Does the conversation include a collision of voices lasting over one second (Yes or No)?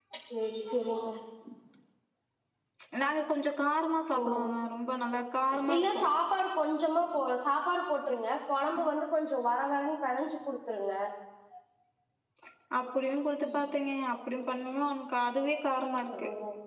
No